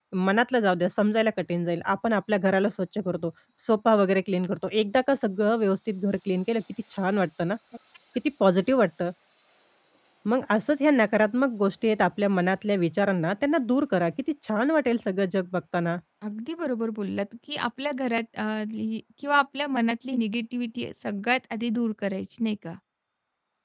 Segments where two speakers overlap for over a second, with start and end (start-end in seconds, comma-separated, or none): none